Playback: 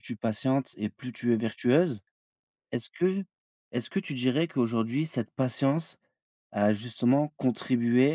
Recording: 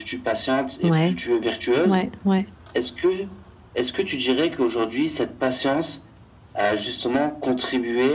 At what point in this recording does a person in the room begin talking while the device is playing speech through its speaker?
0.8 s

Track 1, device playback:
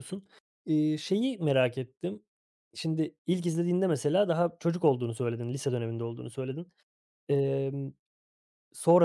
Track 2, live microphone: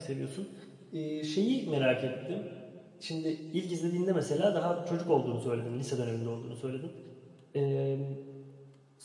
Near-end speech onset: none

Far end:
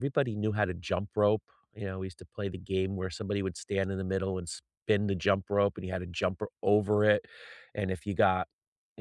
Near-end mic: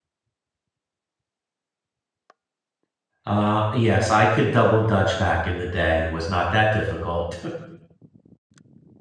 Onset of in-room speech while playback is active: 3.2 s

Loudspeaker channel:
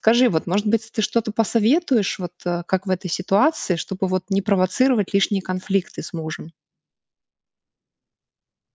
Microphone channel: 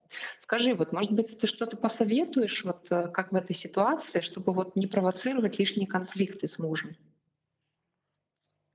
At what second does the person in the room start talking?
none

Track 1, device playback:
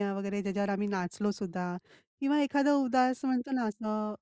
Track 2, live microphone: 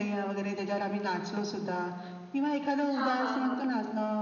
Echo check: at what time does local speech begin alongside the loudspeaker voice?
2.9 s

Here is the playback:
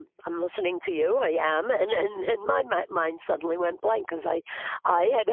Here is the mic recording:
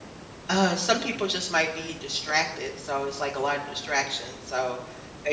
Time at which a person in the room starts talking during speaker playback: 0.5 s

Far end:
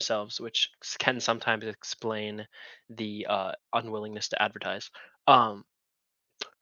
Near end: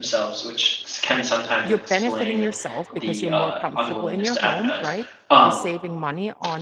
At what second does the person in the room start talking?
1.6 s

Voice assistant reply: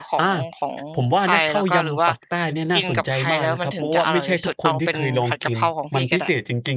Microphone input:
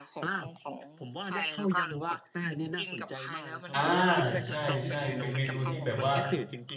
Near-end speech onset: 3.7 s

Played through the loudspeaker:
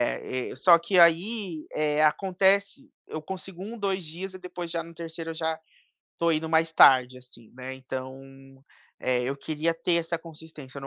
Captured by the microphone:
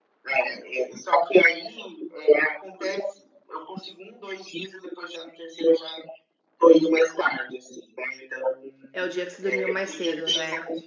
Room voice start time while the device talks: 8.9 s

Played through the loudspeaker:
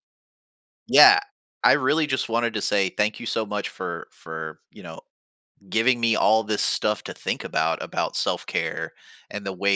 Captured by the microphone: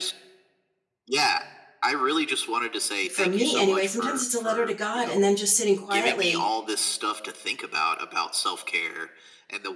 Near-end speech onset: 3.1 s

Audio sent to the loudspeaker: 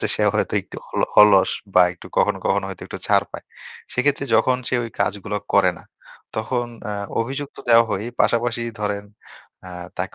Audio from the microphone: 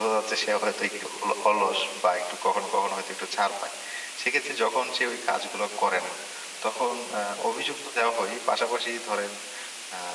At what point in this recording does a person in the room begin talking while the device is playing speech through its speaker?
none

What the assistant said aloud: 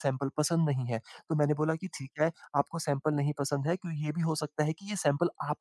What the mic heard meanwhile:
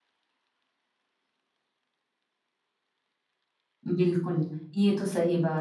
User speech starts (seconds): 3.9 s

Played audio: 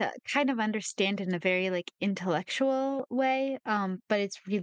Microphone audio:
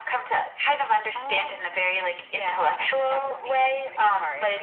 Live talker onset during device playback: 1.1 s

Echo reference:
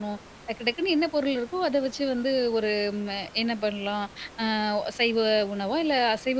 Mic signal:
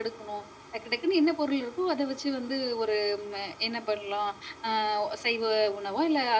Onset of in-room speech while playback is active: none

